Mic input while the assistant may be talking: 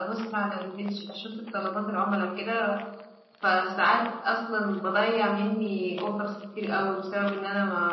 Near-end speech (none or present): none